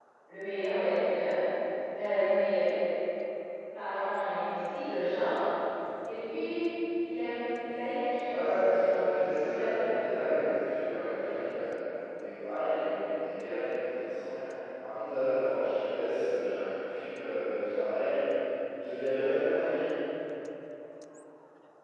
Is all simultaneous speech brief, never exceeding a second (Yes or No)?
No